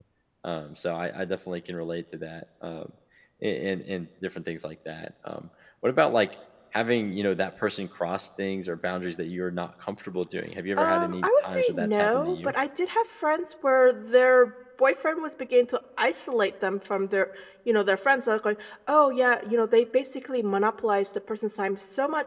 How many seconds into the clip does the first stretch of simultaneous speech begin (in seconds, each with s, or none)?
10.8 s